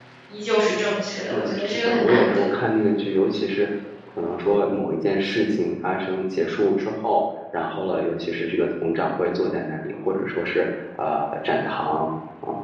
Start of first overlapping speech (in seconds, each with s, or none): 1.3 s